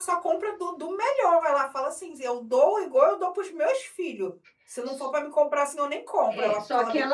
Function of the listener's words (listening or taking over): taking over